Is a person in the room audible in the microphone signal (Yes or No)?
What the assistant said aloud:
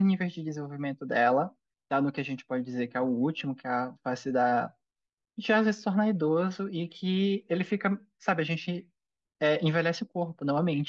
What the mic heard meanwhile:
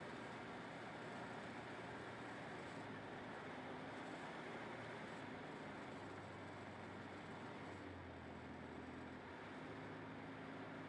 No